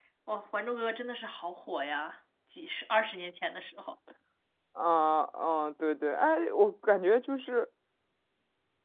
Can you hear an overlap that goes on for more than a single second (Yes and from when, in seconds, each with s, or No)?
No